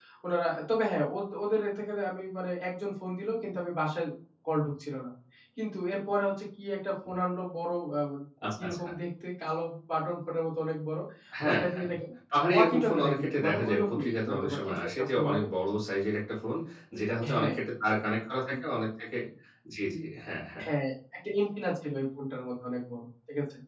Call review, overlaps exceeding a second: present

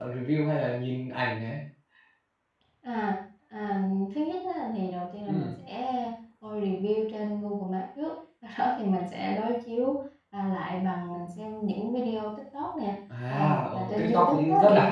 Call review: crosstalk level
present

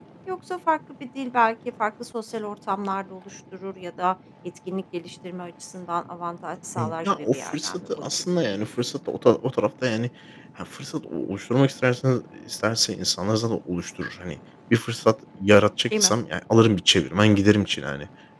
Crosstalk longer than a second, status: present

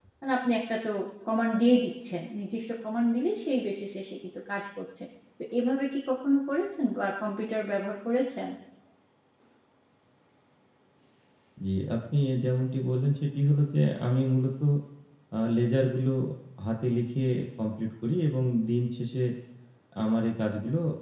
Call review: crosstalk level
none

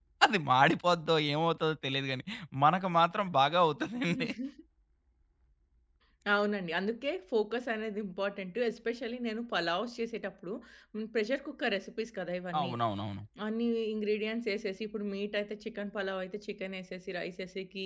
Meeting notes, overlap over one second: none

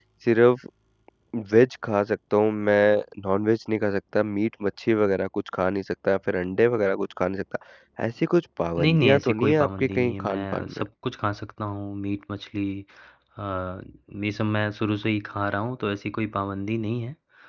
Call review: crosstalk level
present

